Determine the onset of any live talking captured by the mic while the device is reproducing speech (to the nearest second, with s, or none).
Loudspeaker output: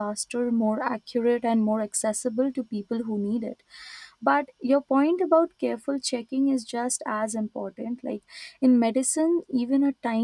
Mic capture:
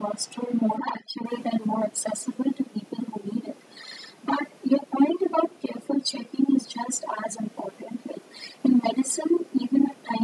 none